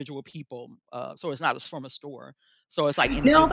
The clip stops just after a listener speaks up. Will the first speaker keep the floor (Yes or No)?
No